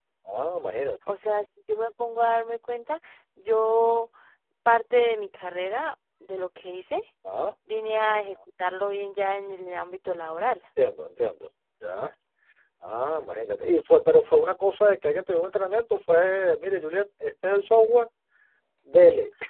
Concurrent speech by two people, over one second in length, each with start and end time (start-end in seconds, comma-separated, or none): none